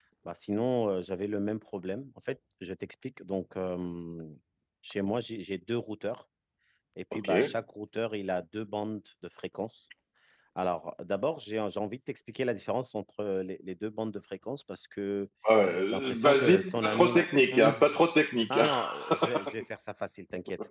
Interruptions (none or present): present